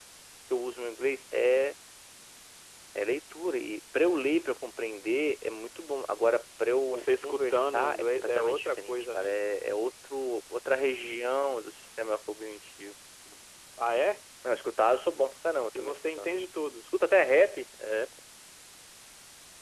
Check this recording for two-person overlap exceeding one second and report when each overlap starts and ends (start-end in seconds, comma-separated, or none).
6.9-9.3